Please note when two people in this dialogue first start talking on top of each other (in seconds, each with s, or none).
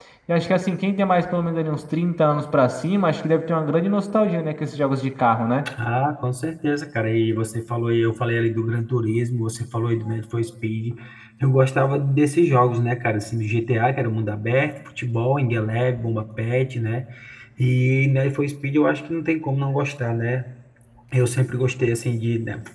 none